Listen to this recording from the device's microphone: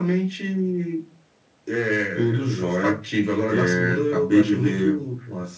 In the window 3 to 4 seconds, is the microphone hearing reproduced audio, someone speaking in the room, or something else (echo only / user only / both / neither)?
both